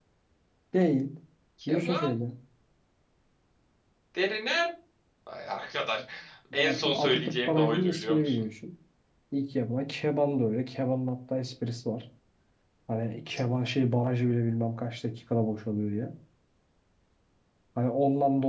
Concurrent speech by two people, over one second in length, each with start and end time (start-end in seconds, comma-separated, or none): 6.5-8.4